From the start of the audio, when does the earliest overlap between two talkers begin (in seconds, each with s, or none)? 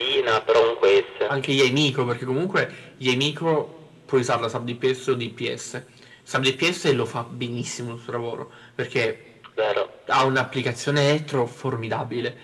none